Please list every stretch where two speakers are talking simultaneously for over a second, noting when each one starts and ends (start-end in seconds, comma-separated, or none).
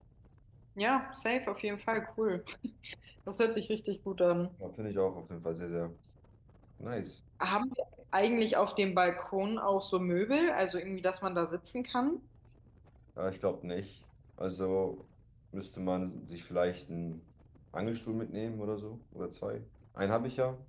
none